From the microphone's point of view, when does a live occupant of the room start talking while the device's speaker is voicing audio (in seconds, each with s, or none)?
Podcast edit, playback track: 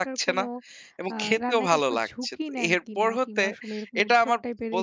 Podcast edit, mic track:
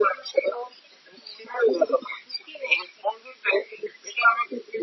none